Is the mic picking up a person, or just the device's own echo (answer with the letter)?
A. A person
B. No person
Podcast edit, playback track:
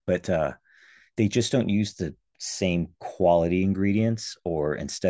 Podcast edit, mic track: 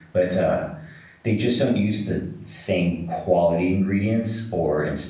B